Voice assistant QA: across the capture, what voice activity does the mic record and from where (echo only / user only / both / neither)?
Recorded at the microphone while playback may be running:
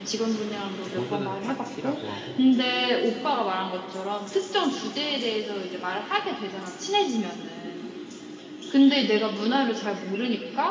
both